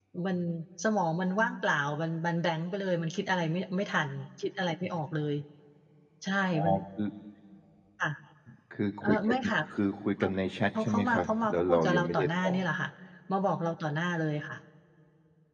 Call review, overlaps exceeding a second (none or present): present